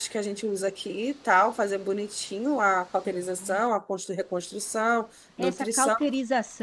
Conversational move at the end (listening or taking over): taking over